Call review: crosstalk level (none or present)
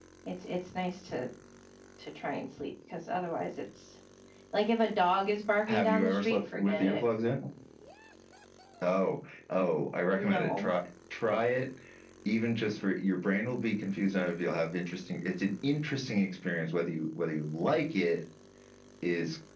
present